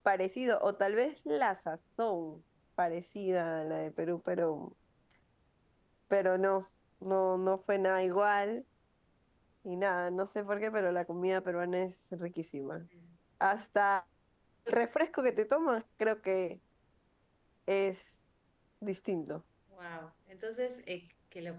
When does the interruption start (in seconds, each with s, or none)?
none